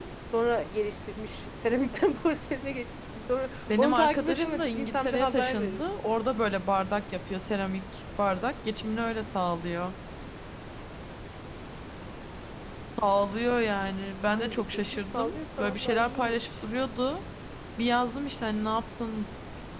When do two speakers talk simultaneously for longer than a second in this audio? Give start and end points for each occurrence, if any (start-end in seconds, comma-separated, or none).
3.7-5.8, 14.3-16.5